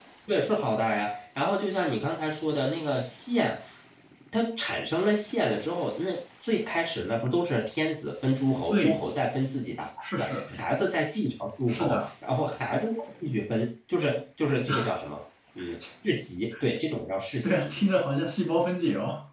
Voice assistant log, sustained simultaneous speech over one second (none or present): none